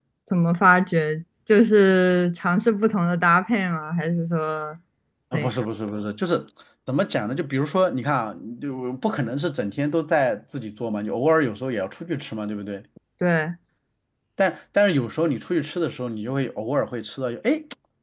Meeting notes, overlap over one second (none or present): none